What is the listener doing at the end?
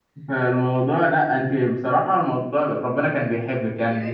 taking over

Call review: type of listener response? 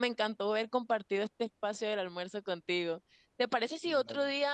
listening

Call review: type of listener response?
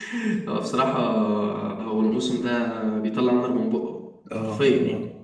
taking over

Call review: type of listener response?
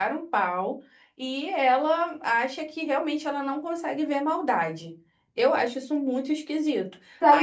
taking over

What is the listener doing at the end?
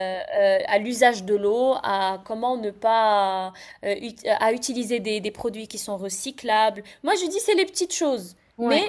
listening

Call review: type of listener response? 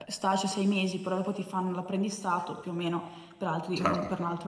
listening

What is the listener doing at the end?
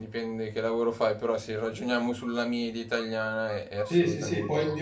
taking over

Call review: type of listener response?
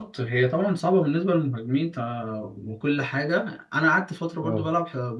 listening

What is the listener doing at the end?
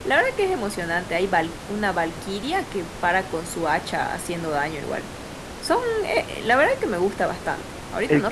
listening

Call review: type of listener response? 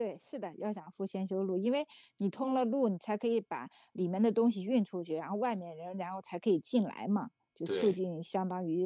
listening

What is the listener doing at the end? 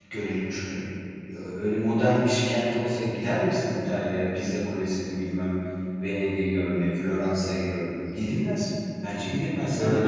taking over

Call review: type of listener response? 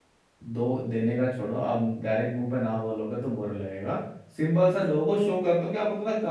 listening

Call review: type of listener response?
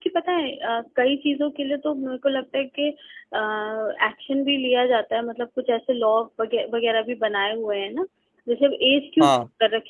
listening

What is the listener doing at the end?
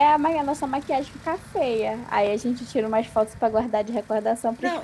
taking over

